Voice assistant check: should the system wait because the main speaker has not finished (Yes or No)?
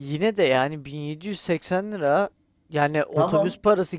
Yes